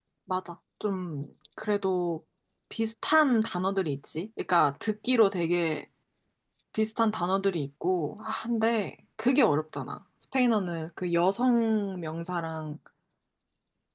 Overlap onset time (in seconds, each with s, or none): none